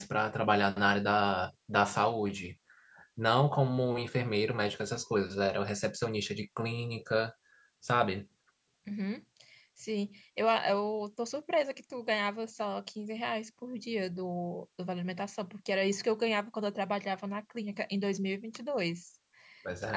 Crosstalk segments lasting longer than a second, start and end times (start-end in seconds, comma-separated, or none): none